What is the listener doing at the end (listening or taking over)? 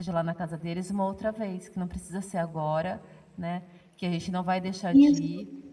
listening